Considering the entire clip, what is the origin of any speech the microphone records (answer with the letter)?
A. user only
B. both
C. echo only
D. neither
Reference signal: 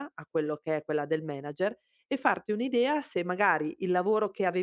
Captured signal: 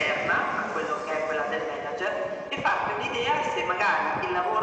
C